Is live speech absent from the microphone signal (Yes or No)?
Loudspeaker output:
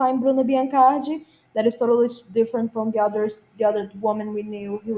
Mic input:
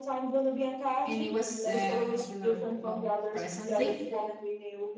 No